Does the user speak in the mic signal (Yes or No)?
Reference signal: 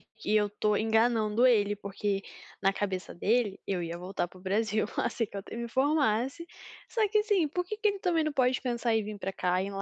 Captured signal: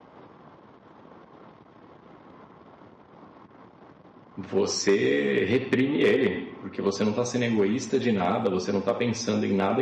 Yes